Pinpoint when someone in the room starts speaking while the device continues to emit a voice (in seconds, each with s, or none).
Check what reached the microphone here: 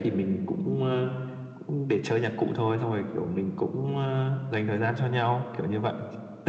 none